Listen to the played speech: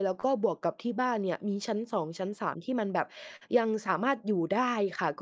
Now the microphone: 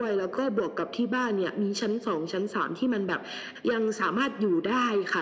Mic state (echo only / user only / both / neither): echo only